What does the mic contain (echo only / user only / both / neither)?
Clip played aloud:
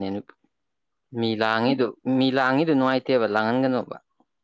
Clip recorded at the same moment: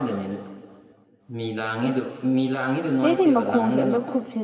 both